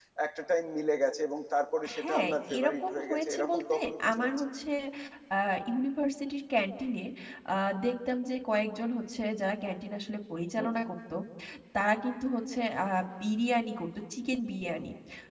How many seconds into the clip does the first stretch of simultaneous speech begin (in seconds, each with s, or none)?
1.8 s